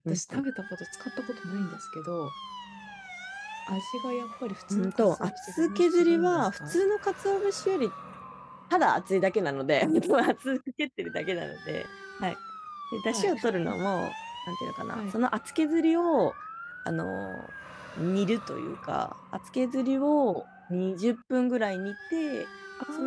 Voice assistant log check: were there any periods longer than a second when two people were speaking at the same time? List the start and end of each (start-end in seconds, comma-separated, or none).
4.7-6.8